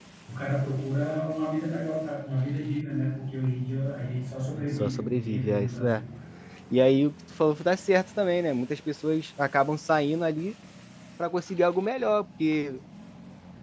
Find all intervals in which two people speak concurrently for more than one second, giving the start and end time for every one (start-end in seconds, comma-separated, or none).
4.6-6.0